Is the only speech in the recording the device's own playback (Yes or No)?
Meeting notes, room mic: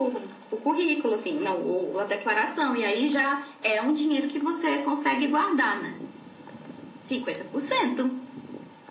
Yes